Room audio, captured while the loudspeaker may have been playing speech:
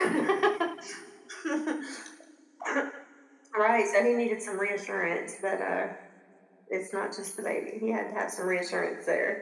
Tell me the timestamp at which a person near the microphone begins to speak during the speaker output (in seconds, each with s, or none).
none